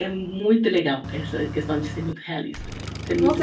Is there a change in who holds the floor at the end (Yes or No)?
Yes